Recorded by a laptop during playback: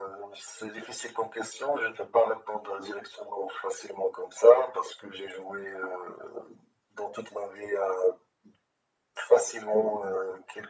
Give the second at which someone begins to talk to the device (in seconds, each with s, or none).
none